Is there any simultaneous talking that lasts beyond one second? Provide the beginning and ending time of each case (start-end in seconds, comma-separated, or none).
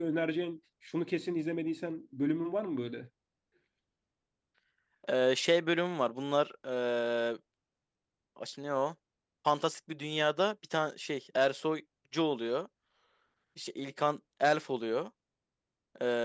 none